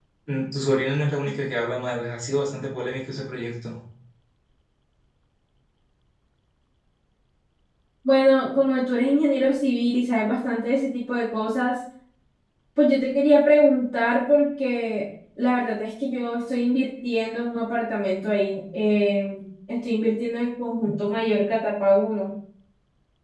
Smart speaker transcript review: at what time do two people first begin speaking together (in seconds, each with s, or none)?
none